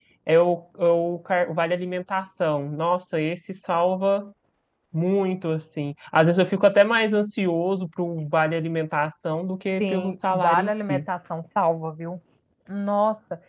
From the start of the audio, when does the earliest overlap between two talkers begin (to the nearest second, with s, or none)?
10 s